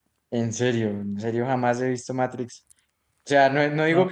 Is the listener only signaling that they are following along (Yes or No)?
Yes